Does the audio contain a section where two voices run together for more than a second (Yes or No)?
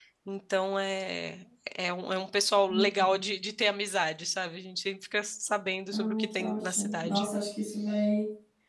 Yes